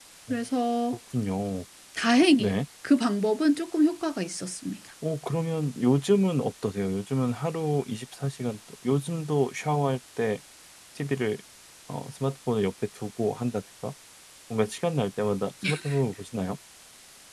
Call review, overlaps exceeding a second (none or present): none